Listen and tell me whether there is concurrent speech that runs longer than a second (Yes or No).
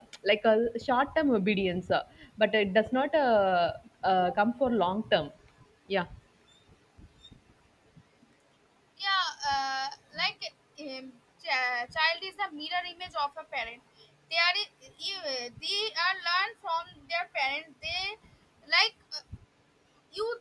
No